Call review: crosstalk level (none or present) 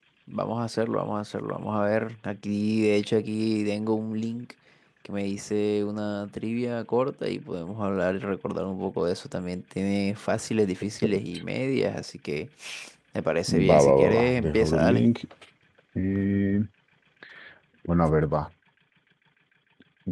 present